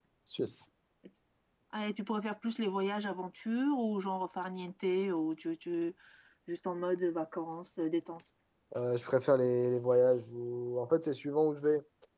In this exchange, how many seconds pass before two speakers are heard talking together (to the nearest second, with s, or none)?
none